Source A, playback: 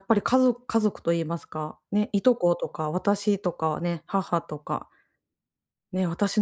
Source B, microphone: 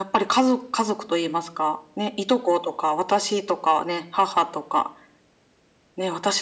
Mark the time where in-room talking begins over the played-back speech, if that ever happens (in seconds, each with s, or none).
none